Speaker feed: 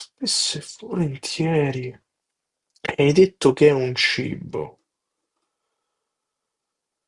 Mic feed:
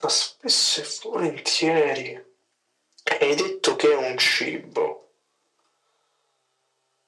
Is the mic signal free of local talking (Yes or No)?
Yes